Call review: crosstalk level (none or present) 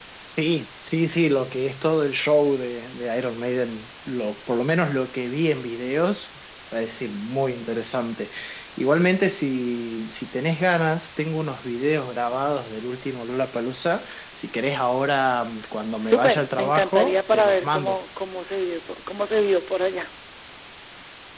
present